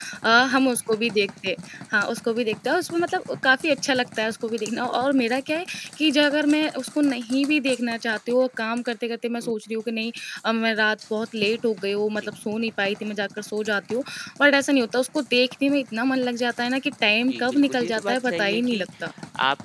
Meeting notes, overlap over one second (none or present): present